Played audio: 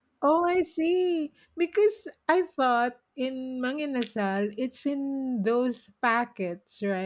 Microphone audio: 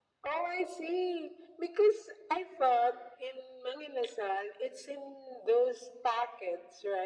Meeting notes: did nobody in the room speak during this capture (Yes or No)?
Yes